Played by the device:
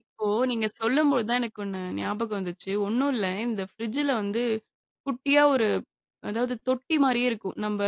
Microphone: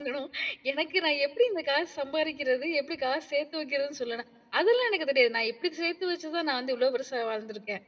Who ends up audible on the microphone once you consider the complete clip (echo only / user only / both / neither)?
user only